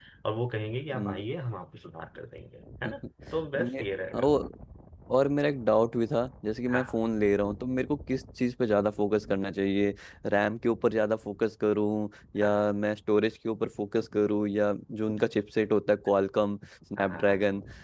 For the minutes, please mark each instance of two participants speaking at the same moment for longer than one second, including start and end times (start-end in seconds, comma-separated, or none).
none